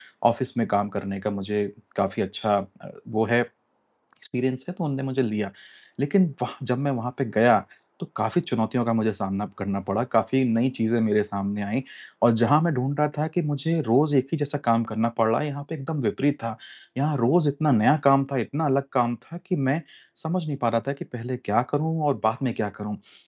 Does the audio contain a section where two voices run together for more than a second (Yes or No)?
No